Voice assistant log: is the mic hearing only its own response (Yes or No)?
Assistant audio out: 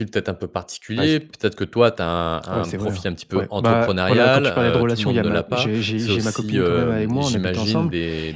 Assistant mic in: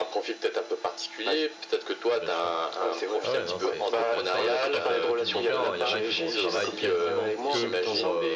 No